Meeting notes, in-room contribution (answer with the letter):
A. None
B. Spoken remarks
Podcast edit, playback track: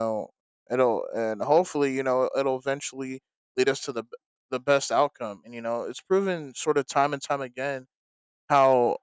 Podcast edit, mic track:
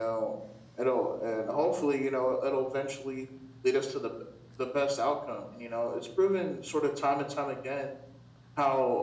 A